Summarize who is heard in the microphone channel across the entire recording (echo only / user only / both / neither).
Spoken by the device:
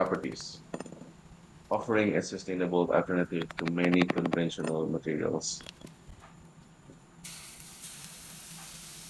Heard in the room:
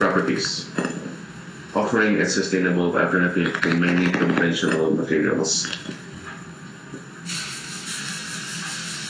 echo only